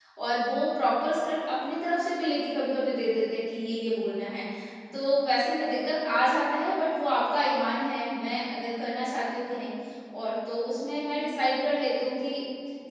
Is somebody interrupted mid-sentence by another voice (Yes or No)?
No